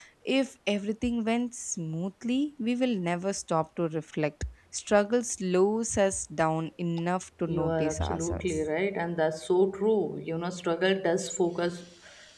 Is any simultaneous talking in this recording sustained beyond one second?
Yes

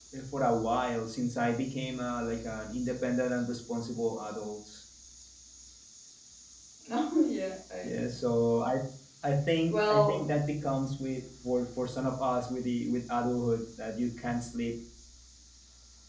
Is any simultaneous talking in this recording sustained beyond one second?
No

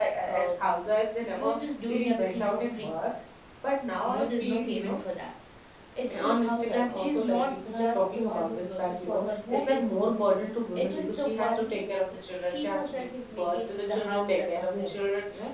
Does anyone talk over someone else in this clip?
Yes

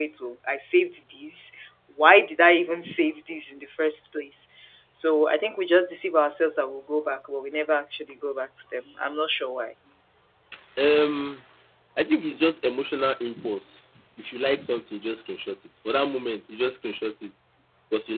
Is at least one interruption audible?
No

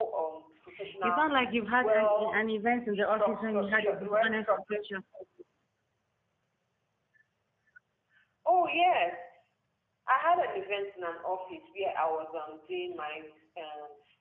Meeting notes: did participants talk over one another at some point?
Yes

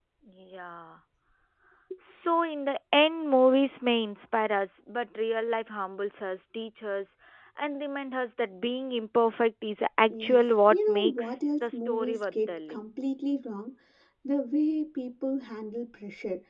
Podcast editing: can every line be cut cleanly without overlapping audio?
No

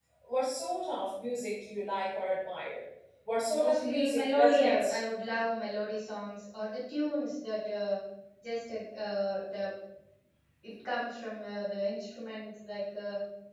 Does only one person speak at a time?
No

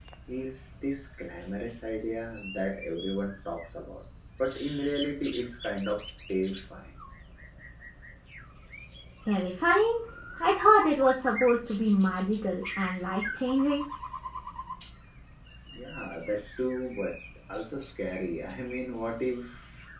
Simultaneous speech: No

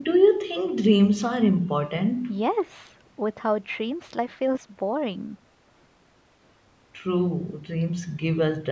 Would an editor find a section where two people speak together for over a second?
No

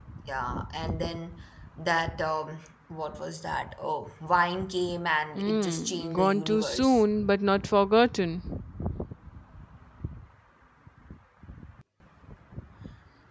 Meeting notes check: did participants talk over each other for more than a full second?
Yes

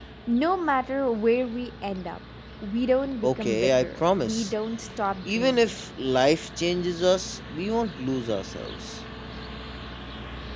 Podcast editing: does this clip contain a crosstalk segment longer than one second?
Yes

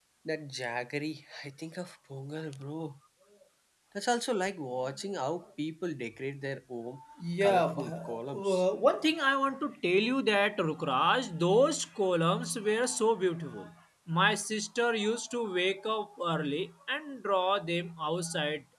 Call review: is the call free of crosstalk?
No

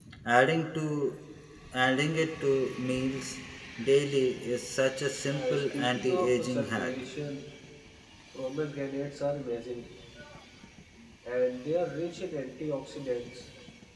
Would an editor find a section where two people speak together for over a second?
Yes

